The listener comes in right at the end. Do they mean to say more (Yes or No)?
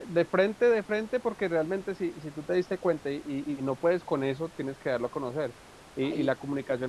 No